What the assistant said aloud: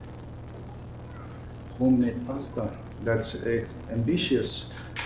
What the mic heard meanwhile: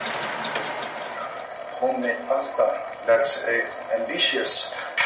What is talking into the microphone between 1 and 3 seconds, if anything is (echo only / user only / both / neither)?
echo only